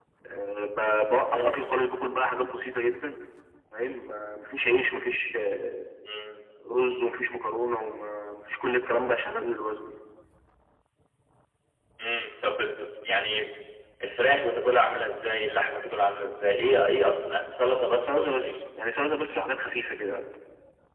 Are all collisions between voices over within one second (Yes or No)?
Yes